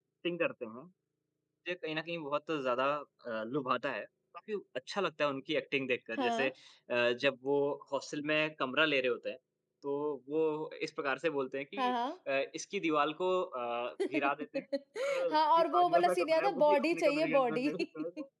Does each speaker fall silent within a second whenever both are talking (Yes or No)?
No